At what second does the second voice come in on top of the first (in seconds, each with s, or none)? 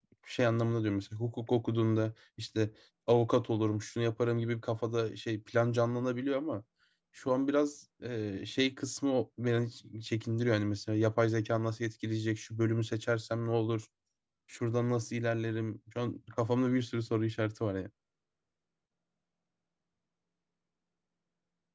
none